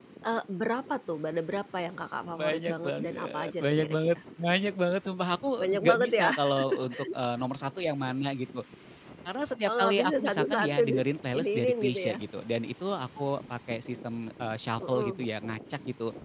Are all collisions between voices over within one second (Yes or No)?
No